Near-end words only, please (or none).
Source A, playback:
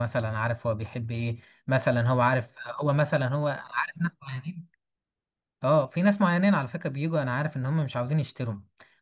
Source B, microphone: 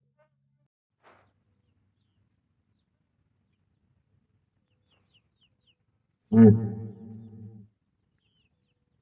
امم